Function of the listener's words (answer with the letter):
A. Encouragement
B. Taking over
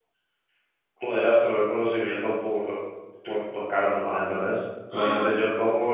A